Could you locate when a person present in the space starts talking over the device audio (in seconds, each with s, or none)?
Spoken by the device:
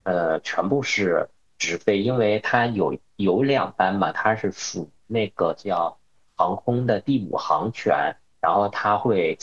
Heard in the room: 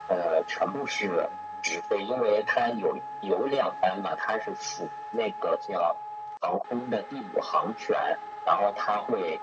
none